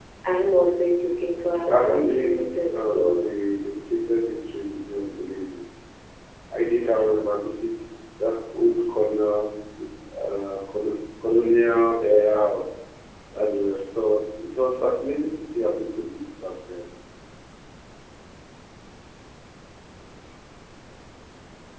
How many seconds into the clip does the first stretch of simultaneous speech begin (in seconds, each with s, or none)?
1.7 s